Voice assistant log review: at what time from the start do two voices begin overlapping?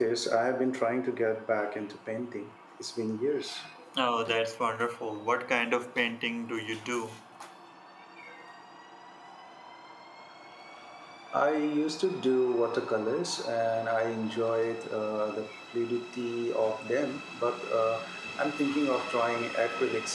none

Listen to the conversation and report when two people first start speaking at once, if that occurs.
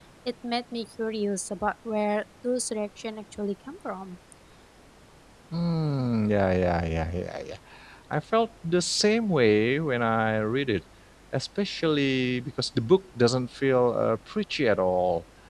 none

